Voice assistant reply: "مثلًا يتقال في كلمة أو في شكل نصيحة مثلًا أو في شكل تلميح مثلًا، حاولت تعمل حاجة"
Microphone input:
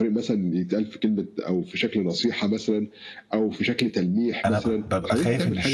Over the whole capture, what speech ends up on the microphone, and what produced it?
both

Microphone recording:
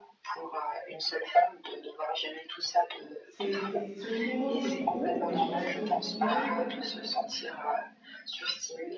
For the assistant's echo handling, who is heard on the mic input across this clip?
both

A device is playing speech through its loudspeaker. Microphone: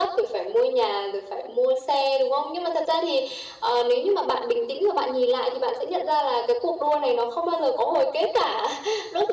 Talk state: echo only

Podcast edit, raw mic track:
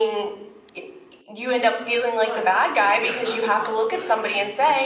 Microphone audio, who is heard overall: both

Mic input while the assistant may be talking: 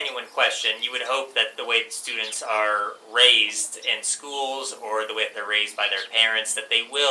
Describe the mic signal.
echo only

